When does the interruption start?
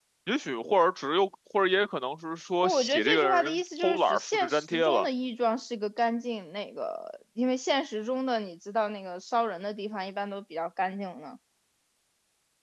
2.6 s

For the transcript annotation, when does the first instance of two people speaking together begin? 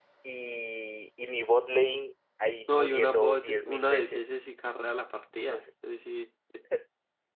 2.7 s

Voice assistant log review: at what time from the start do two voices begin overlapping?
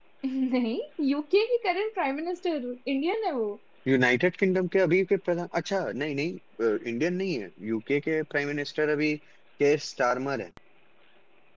none

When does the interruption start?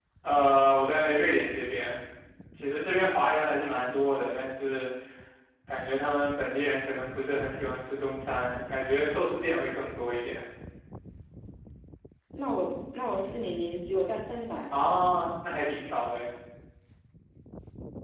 none

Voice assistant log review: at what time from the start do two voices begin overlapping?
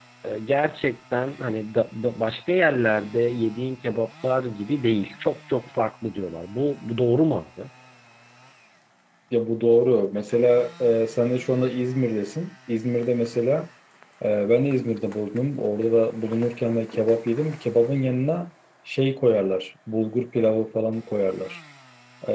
none

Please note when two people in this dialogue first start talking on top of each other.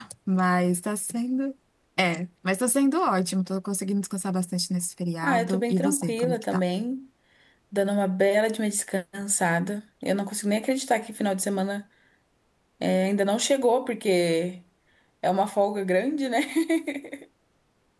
5.2 s

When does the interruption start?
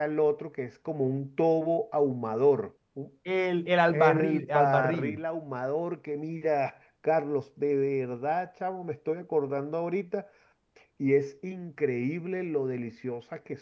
3.9 s

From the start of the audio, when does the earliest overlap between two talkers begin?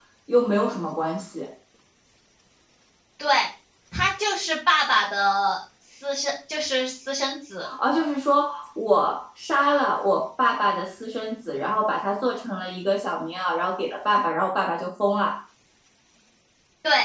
none

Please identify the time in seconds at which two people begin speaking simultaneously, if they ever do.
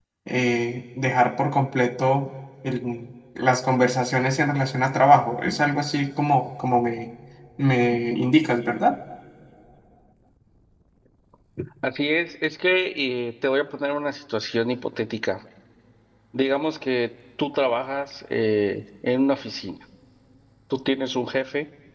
none

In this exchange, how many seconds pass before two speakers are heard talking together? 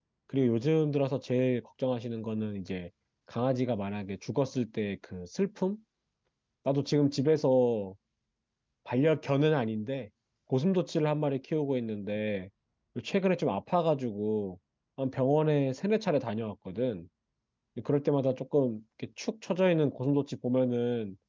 none

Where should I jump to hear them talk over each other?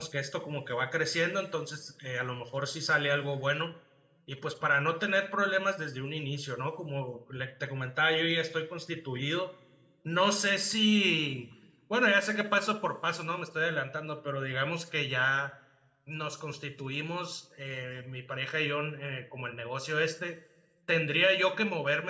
none

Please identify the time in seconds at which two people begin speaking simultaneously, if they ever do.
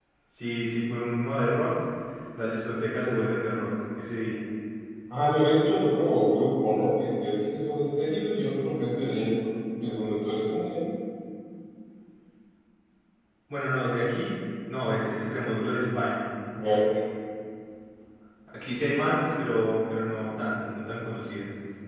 none

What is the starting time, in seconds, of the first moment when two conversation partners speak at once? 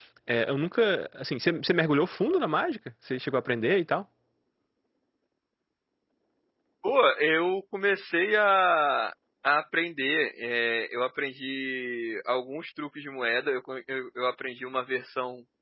none

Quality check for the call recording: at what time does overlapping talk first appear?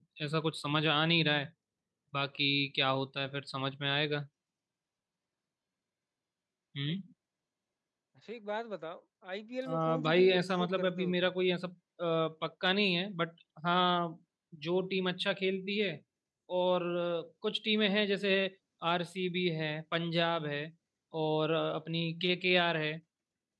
9.7 s

